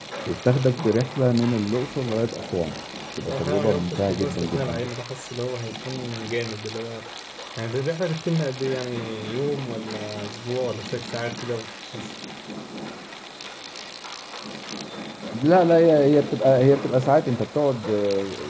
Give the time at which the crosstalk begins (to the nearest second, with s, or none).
3 s